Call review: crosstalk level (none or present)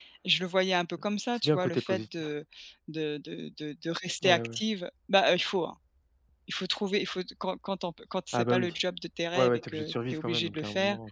present